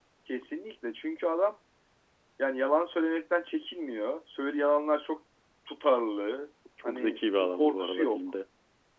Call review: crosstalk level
present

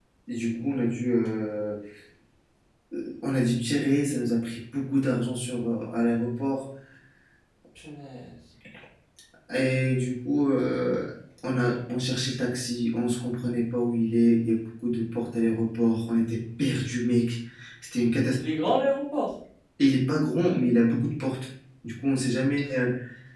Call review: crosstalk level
none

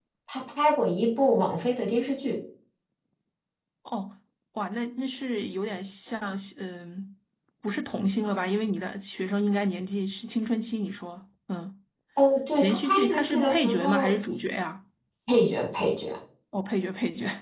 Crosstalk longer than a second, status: present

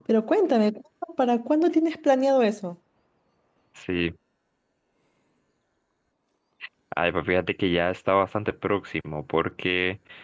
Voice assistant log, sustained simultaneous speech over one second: none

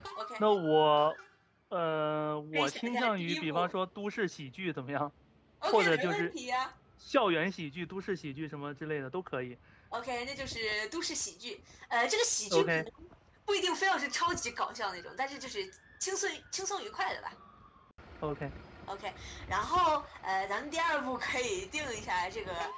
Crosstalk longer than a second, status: present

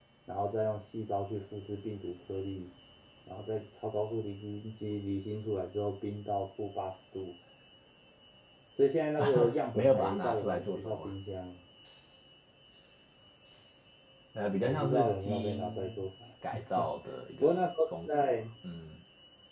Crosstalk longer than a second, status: present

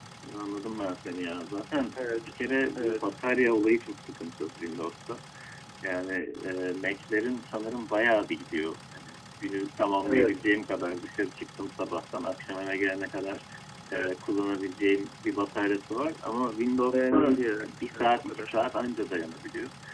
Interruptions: present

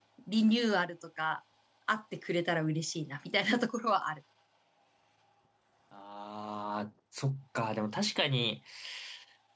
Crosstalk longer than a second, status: none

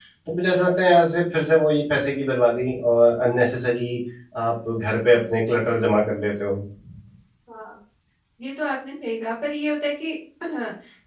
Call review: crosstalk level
none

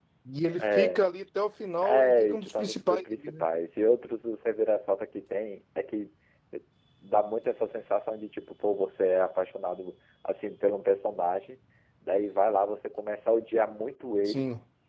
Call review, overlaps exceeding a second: present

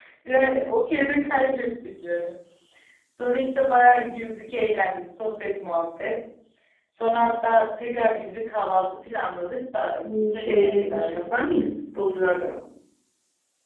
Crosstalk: present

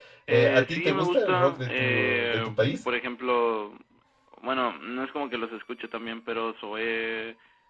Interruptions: present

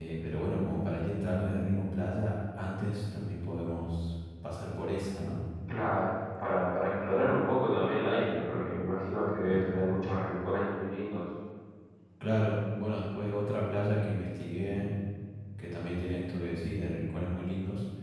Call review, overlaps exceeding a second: none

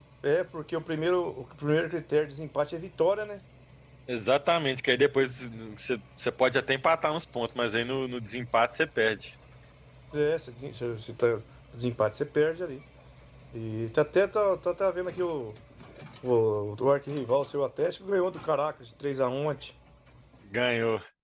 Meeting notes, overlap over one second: none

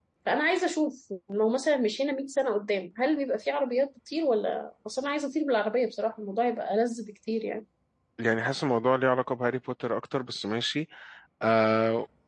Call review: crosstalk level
none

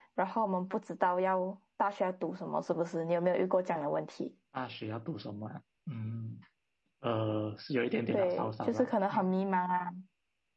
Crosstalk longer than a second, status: present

